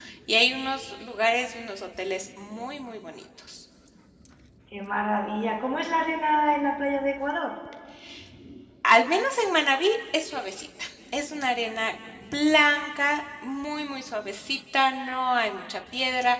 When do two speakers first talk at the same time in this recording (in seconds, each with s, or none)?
none